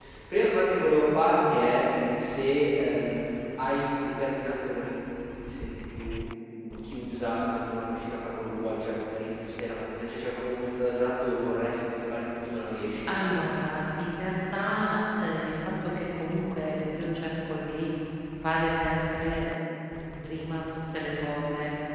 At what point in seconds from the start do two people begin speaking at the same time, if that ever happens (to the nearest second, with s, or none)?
none